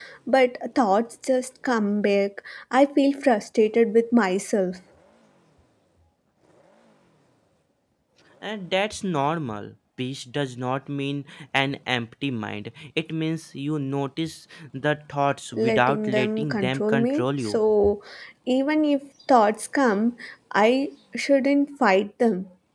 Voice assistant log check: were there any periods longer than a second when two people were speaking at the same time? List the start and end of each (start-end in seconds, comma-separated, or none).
15.5-17.6